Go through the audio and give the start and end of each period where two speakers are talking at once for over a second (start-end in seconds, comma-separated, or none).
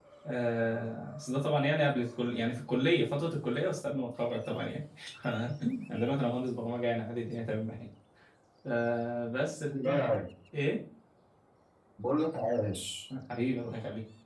none